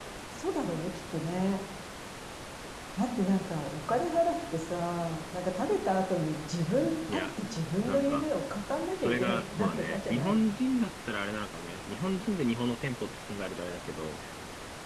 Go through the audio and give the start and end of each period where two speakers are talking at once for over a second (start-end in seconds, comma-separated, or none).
9.0-10.4